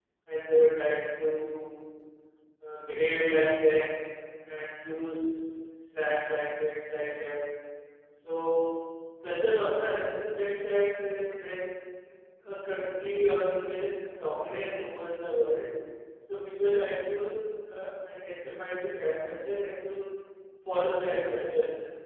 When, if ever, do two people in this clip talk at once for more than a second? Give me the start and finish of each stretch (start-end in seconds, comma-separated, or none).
none